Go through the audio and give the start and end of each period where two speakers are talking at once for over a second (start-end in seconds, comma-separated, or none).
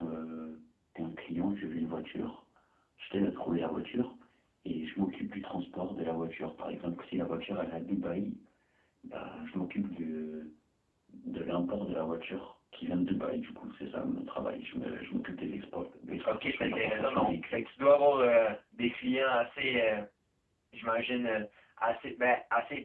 16.2-17.6